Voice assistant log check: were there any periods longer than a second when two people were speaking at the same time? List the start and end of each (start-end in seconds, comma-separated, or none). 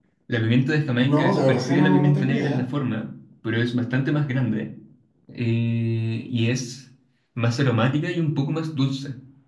1.0-2.6